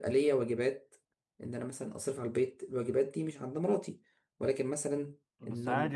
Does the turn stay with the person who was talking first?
No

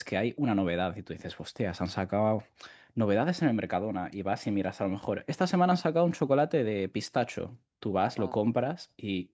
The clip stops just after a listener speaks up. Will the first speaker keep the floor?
Yes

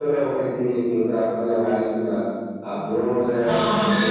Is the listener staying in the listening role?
No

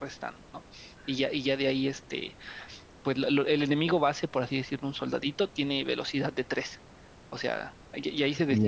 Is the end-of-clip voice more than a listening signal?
Yes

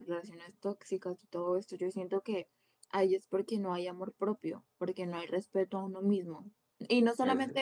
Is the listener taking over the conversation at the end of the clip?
No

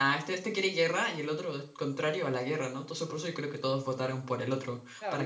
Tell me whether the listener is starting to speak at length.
Yes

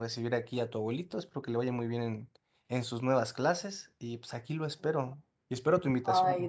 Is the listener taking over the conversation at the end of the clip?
Yes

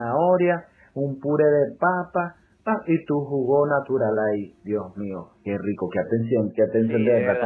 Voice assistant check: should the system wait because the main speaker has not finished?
No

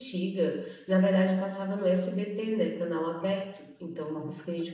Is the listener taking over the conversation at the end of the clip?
No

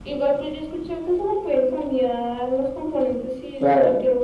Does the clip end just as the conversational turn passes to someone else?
Yes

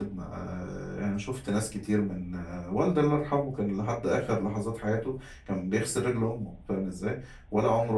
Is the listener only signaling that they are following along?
Yes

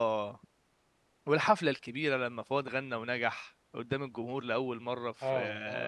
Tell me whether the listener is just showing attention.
No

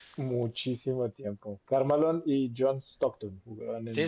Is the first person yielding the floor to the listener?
Yes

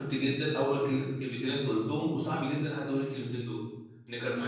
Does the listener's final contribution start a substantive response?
No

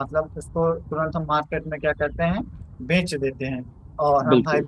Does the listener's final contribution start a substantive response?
No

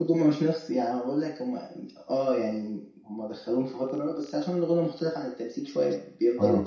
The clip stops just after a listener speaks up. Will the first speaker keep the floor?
No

